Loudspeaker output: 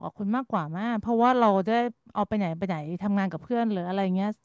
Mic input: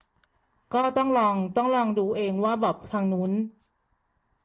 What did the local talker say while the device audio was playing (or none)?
ก็ต้องลองต้องลองดูเองว่าแบบทางนู้น